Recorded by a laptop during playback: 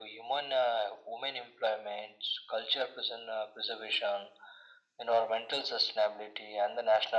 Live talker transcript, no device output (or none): none